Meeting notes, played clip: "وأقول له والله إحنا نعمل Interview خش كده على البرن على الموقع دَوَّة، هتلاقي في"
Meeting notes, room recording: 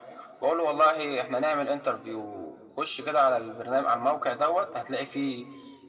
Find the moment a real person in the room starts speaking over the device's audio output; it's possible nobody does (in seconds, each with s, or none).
none